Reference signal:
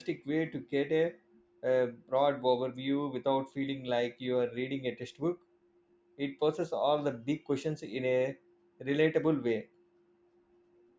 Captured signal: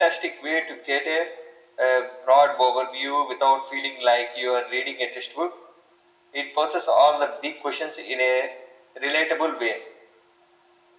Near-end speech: none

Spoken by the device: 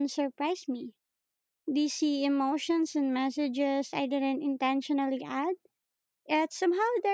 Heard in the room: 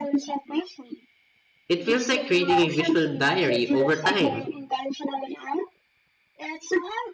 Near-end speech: present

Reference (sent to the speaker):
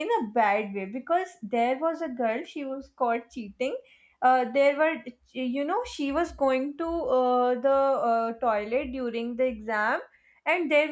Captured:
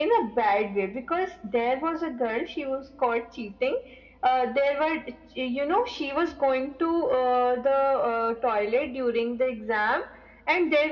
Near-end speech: none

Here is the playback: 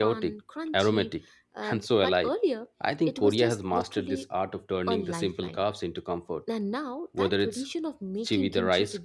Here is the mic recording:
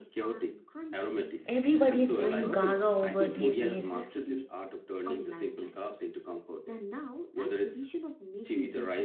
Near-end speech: present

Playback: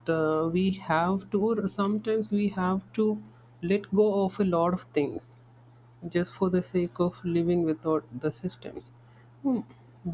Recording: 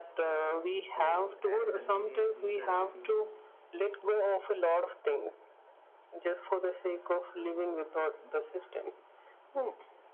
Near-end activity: present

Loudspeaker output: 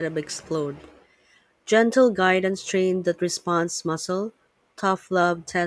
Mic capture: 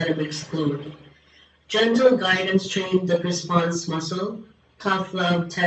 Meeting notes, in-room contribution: none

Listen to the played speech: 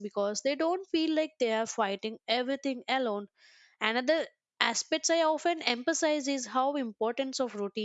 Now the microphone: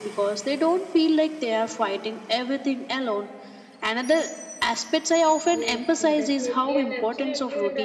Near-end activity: present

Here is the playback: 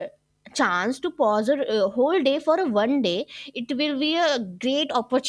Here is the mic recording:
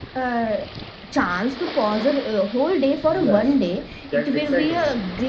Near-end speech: present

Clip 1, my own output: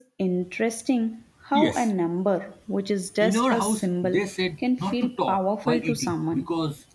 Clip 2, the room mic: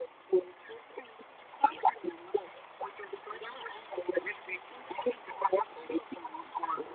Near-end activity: none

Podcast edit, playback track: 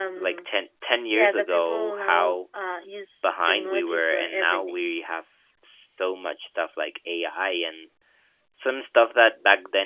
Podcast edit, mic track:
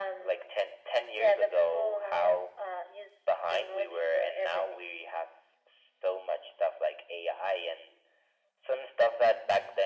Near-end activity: none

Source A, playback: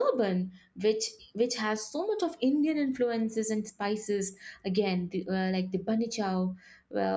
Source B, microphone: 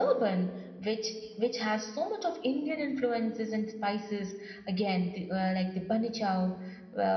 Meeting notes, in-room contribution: none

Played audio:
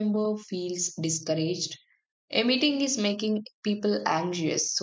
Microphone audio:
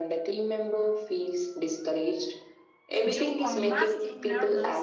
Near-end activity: present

